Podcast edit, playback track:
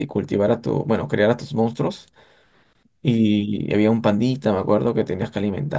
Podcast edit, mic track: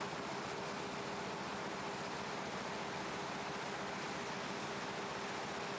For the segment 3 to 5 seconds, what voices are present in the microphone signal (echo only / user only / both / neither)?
neither